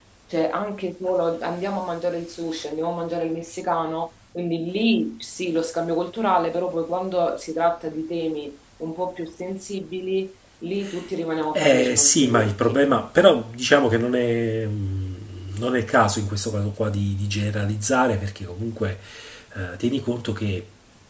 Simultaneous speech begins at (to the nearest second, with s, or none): 12 s